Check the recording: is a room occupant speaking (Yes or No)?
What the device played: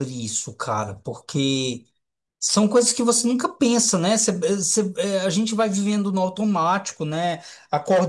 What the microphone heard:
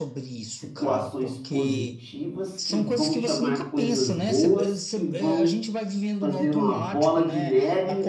Yes